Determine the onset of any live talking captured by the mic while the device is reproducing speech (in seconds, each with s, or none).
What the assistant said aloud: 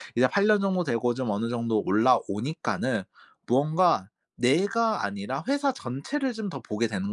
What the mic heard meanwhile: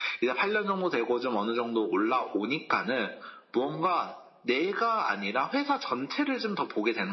none